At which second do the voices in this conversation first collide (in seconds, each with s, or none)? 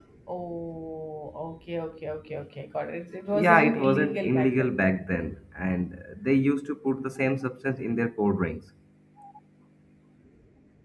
3.3 s